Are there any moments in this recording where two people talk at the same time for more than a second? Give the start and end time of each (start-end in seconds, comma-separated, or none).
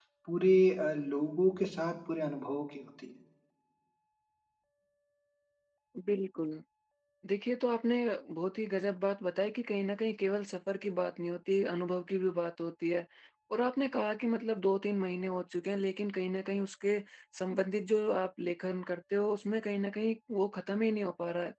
none